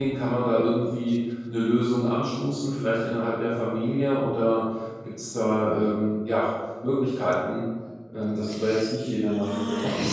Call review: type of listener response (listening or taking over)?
taking over